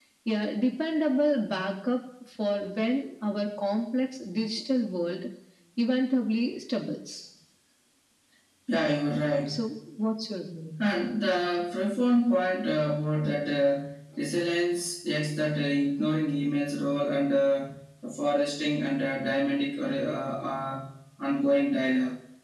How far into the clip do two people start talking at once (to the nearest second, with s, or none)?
none